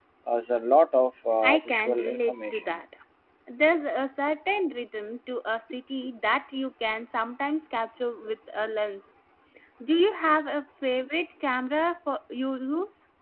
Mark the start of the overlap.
1.4 s

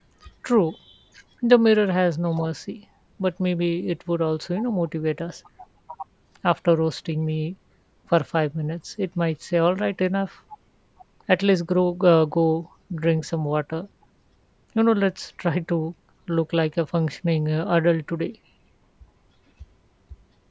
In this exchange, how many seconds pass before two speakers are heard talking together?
none

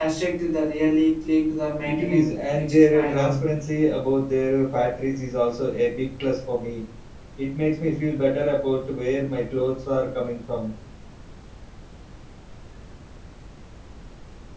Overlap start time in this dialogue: 1.8 s

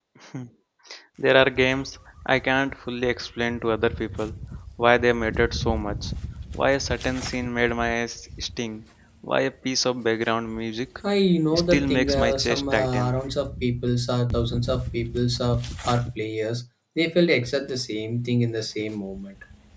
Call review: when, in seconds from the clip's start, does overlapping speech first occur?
11.5 s

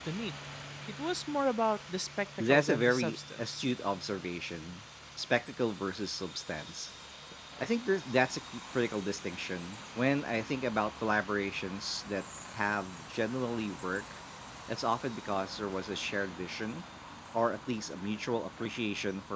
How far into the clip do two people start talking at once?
2.4 s

